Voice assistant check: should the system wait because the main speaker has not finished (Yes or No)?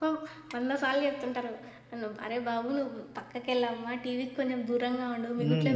No